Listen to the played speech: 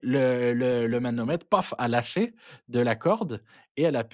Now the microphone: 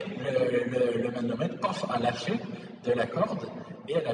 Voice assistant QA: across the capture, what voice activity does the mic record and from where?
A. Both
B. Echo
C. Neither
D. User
B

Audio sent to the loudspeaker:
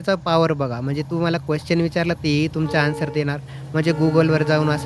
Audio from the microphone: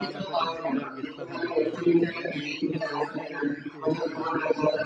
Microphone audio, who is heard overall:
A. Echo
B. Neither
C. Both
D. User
C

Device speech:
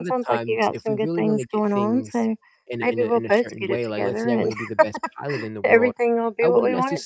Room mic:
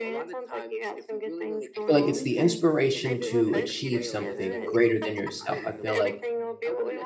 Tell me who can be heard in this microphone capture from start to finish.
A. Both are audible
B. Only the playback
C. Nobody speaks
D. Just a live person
A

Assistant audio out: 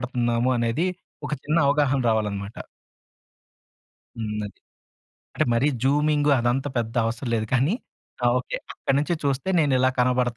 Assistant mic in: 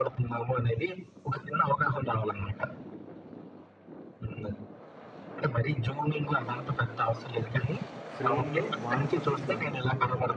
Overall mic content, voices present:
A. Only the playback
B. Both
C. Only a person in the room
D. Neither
B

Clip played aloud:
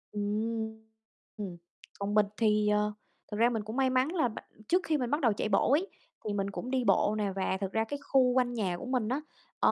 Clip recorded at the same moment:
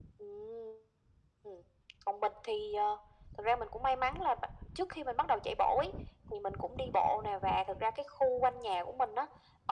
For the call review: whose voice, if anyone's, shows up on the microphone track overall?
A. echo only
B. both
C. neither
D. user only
A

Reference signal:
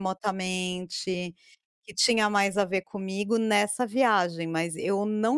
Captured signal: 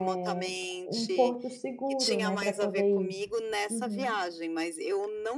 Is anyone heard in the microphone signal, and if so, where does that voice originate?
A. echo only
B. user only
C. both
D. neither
C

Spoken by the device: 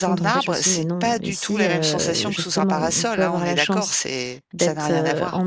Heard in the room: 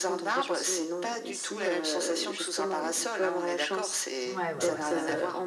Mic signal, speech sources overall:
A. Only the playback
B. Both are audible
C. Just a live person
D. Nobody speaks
B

